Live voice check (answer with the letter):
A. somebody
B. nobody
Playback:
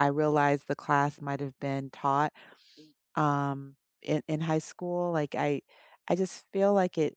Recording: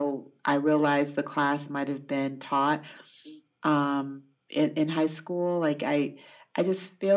B